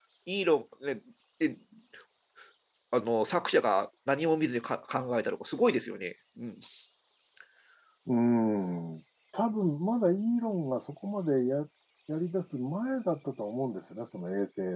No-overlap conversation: Yes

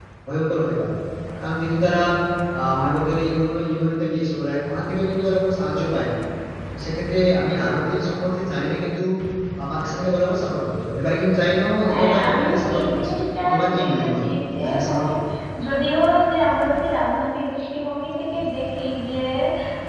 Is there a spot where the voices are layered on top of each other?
Yes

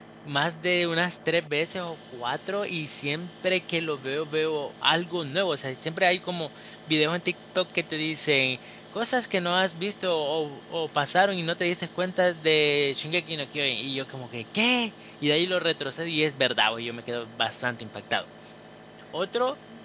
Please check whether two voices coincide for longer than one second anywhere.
No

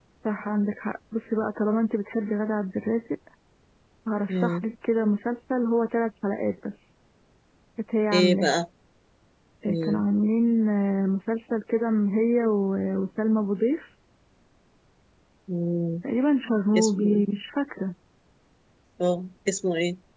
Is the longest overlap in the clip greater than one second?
No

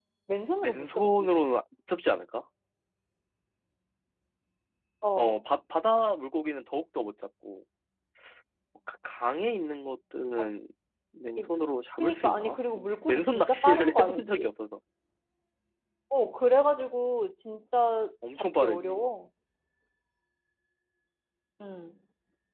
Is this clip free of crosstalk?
No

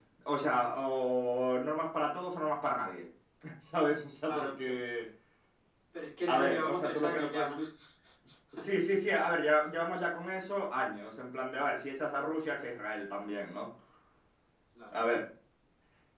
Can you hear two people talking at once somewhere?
Yes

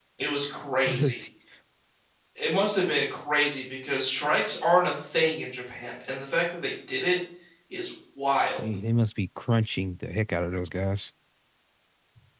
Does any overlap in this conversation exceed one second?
No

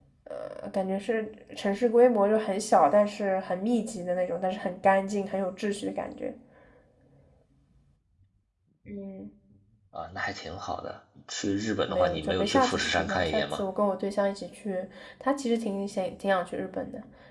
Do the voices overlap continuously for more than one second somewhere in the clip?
Yes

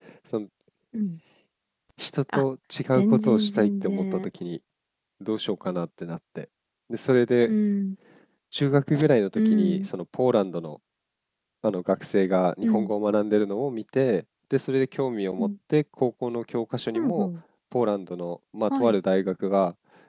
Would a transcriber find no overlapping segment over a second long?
No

